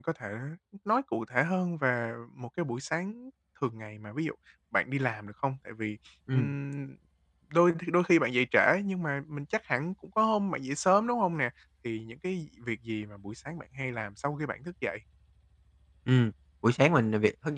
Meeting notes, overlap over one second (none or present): none